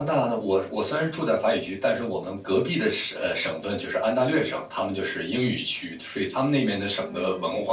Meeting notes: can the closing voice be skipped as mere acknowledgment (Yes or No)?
Yes